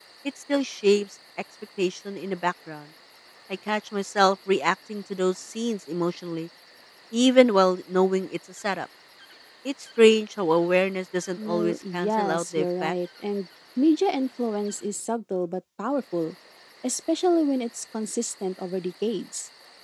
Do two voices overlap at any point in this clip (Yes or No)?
Yes